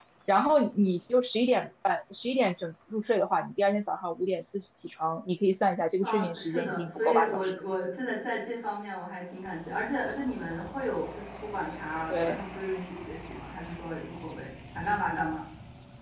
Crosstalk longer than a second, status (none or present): present